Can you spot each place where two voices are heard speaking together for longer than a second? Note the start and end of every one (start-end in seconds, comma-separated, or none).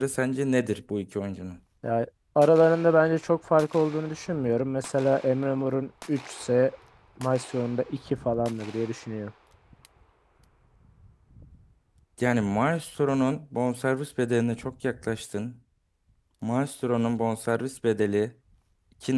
none